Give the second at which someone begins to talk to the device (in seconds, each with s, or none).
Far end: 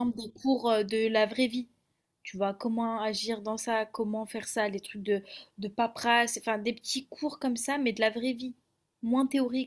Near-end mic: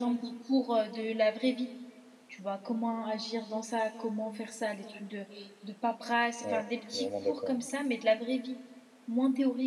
6.4 s